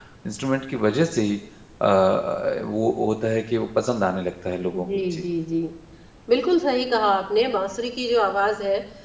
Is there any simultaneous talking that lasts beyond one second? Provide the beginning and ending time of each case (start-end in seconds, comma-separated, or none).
none